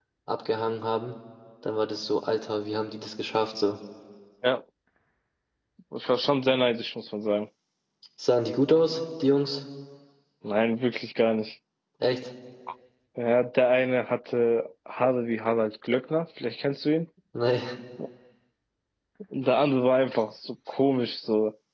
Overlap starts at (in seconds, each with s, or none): none